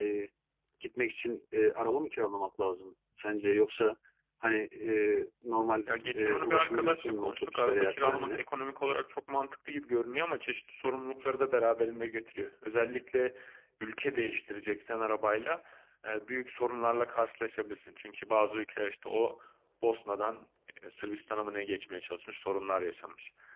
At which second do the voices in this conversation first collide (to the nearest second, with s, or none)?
6 s